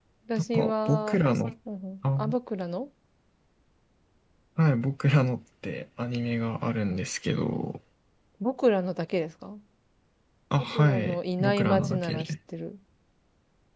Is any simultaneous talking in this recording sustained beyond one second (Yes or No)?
Yes